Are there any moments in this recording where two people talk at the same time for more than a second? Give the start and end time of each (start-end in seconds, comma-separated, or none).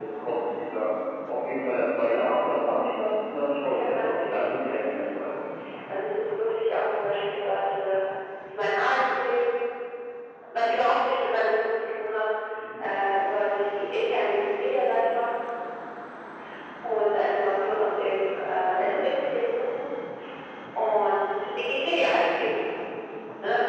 3.7-5.1